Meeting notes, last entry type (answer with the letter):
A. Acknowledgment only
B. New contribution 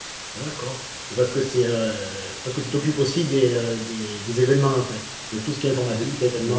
B